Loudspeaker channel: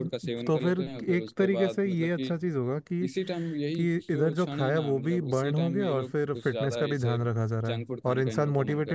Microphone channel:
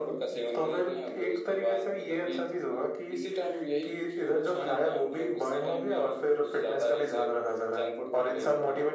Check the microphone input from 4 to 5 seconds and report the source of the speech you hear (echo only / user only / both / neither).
echo only